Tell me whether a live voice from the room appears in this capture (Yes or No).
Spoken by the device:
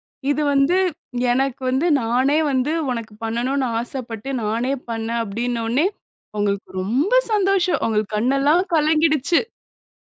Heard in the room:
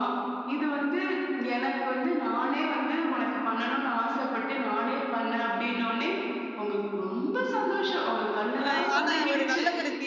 Yes